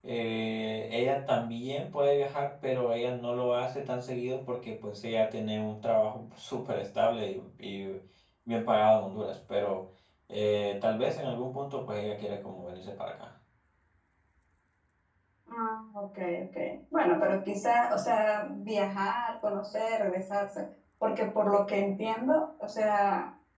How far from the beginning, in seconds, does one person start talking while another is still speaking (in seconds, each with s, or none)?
none